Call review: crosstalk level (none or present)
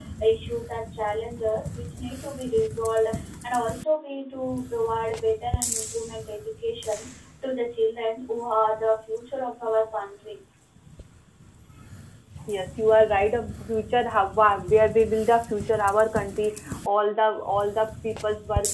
none